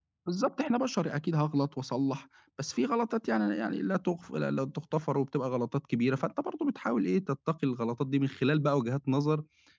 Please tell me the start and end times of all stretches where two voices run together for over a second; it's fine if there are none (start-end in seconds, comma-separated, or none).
none